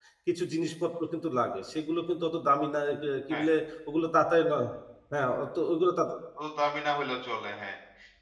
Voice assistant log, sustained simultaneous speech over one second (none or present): none